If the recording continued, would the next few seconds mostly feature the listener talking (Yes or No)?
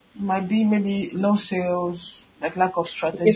Yes